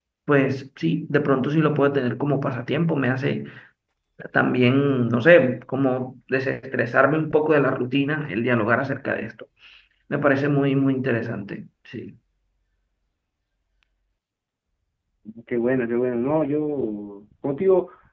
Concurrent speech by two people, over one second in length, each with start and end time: none

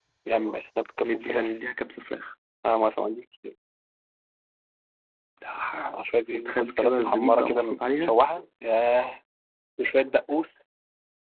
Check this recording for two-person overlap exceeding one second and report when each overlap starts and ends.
6.3-8.2

